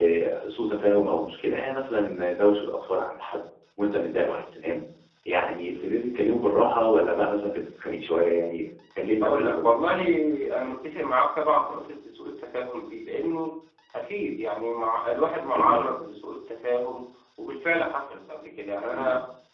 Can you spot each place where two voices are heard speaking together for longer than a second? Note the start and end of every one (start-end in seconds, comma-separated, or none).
none